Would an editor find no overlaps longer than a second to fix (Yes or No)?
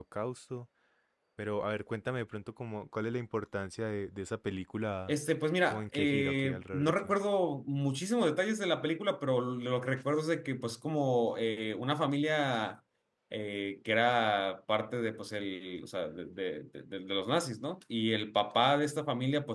No